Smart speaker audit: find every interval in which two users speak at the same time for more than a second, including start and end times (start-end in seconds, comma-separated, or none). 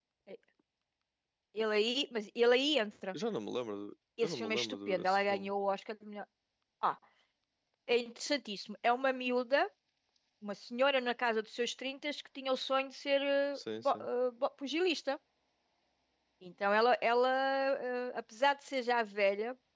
4.2-5.5